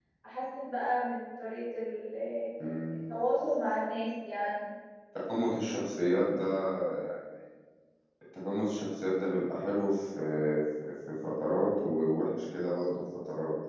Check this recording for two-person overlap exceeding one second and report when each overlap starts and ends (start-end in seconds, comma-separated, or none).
none